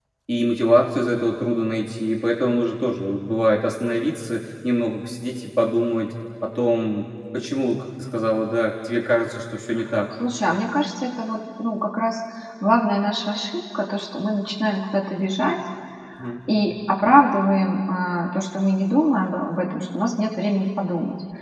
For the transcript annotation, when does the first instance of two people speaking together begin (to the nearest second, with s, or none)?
none